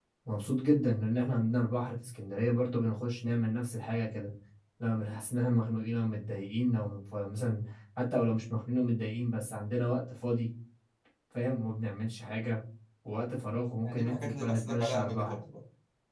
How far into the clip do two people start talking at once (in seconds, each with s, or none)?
13.8 s